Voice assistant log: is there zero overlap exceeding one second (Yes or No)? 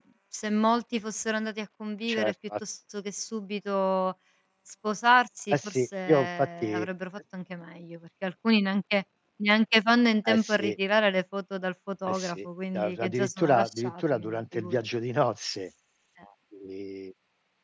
No